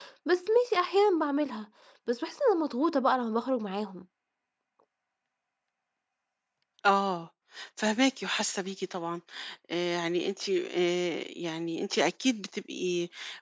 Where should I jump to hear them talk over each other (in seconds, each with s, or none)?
none